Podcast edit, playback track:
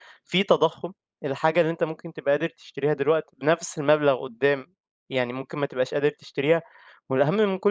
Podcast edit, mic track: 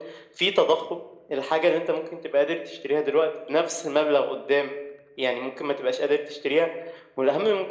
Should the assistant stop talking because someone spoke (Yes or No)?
No